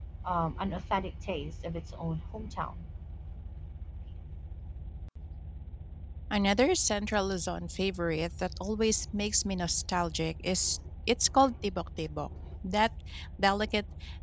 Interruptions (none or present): none